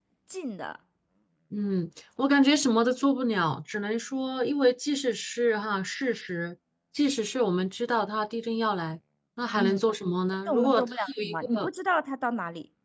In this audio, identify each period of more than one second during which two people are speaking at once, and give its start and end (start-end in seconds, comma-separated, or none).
10.5-11.7